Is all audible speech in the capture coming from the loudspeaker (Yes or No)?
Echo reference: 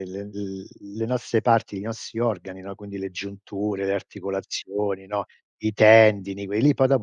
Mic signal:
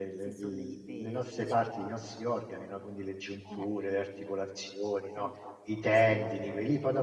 No